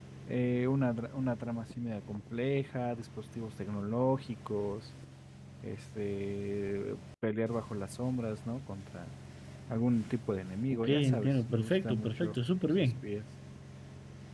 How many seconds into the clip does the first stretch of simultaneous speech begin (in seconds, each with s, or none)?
10.7 s